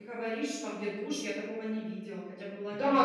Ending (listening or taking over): taking over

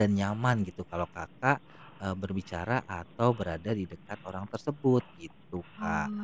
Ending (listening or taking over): taking over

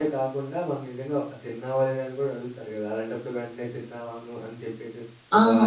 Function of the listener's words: taking over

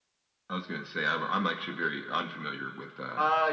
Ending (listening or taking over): taking over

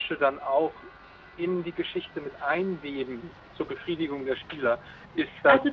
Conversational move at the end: taking over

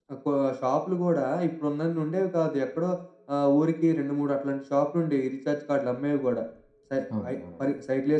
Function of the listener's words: listening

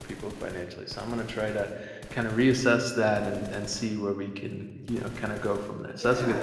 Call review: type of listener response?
taking over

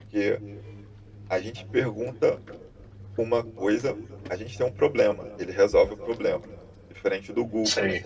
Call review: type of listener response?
listening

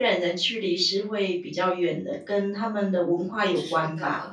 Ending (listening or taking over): taking over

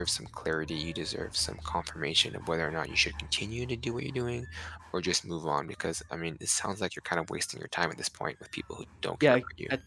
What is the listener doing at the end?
taking over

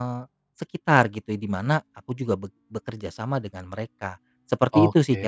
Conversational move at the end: taking over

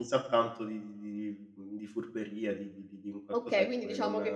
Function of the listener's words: taking over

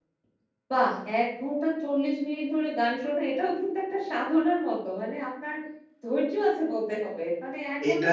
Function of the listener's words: listening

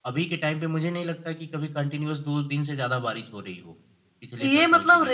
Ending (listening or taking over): taking over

